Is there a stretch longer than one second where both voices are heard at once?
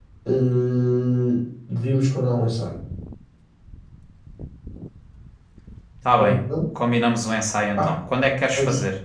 No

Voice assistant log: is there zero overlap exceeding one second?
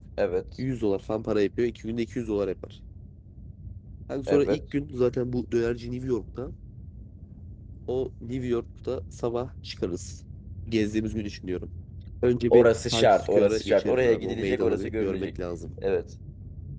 No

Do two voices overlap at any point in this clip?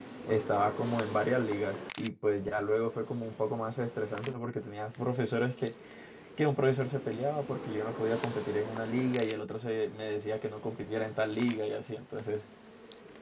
No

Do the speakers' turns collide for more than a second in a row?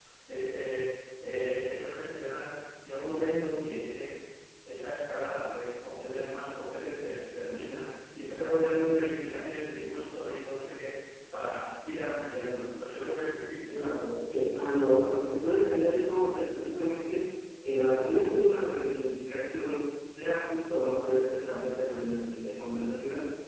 No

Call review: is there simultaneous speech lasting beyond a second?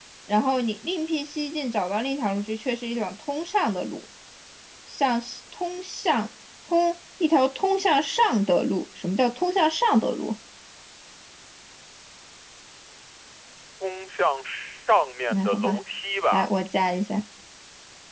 No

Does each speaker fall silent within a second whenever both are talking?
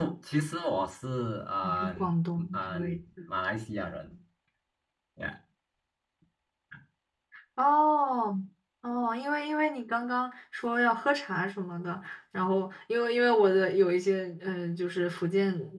No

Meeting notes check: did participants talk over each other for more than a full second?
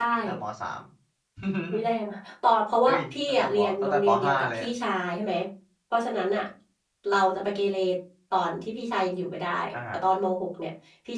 Yes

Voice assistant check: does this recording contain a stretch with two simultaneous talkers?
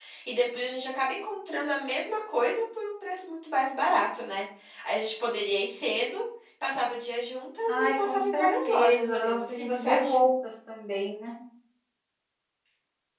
Yes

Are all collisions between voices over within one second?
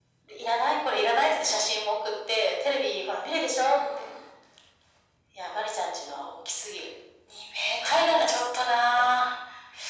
No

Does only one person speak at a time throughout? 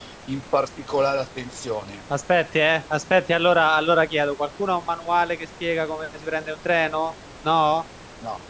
Yes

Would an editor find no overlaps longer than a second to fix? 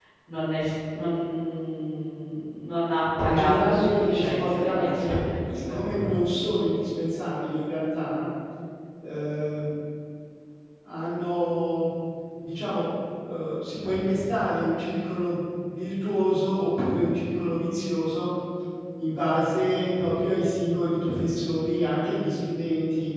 No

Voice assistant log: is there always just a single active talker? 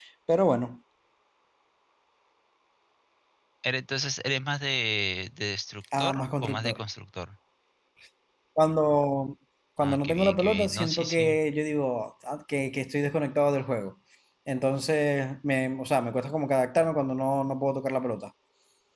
No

